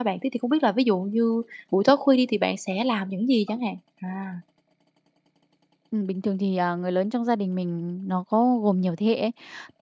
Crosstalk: none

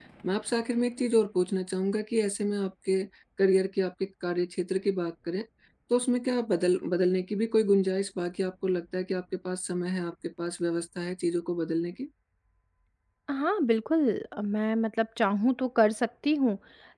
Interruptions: none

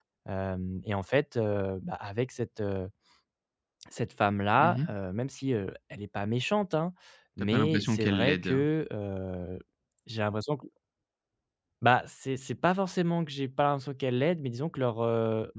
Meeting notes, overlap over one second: present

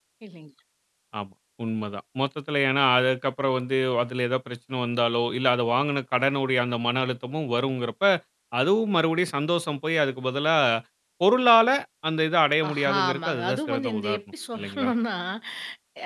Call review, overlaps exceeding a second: present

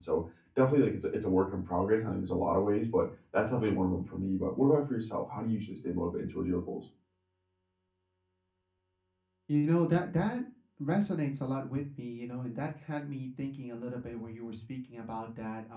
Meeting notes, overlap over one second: none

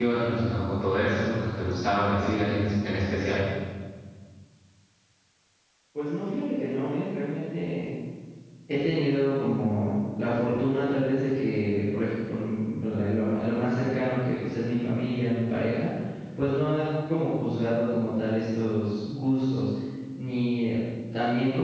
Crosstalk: none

